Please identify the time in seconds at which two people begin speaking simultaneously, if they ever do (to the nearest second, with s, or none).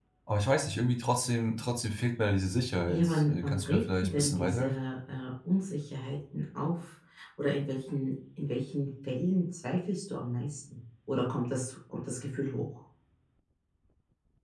3 s